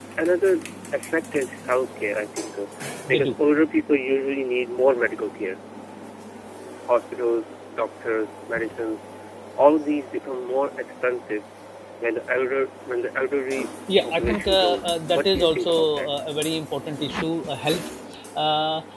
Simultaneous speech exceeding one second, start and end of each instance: 14.0-16.1

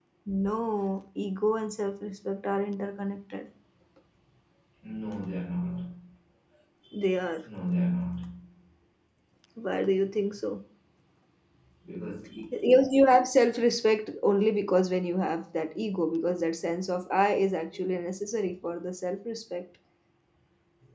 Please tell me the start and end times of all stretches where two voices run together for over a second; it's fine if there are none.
none

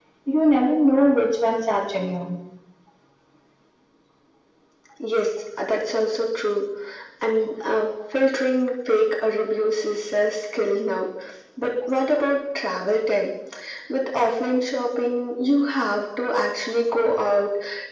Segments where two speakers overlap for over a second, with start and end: none

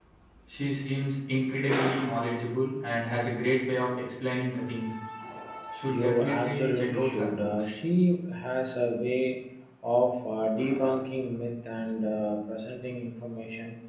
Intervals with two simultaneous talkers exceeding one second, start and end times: 5.9-7.7

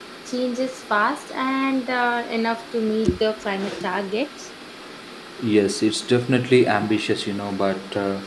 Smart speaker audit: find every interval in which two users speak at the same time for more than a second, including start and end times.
none

